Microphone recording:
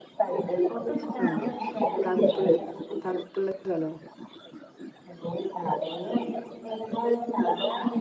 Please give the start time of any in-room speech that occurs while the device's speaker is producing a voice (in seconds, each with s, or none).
1.2 s